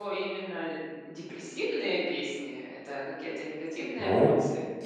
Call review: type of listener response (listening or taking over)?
taking over